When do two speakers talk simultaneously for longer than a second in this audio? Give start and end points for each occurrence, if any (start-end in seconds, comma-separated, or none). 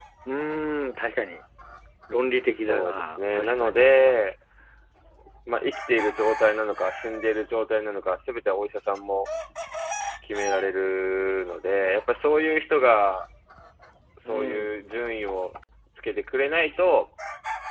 2.4-3.9